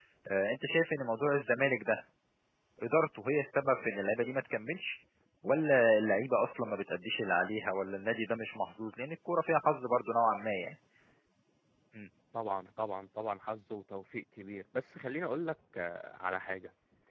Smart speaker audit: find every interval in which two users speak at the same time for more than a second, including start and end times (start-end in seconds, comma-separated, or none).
none